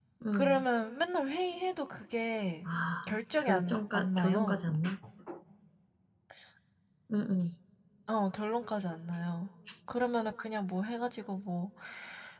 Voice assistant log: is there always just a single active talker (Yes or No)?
No